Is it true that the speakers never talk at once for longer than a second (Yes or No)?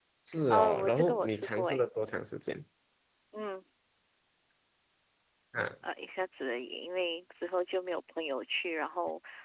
No